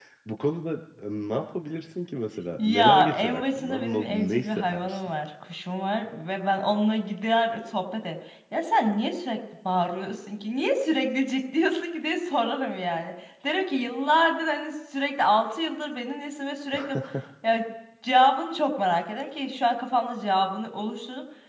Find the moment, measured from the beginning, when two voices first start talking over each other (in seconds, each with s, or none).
2.6 s